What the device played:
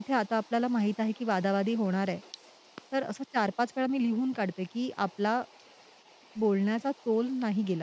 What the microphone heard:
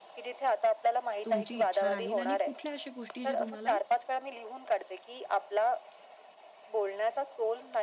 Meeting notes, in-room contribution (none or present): present